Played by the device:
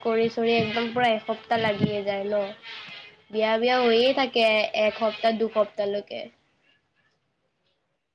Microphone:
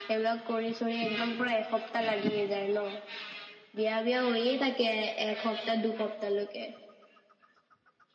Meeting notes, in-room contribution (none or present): none